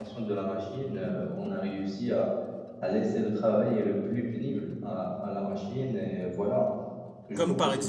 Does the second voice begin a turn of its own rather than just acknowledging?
Yes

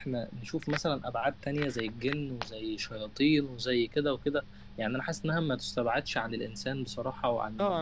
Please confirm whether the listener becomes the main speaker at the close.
Yes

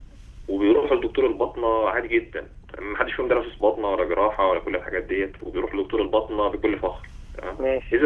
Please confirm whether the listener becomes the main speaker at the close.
No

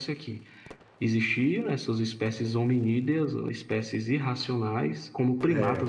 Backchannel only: Yes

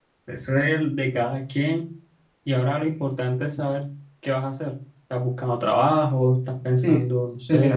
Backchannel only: No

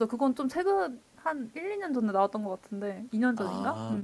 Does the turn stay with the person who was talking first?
No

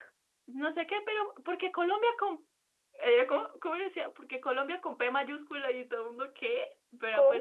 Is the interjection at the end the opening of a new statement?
No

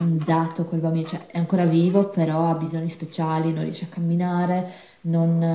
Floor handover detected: No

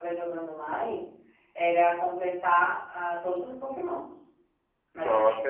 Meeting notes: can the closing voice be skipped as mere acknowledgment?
No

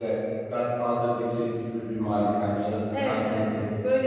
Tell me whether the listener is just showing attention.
No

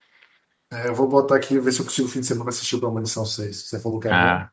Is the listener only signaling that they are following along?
No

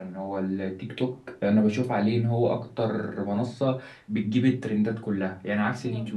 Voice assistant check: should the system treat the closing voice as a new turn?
No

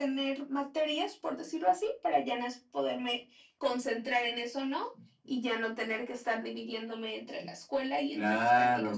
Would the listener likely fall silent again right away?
No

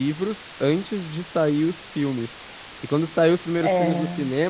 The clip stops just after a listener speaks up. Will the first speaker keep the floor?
Yes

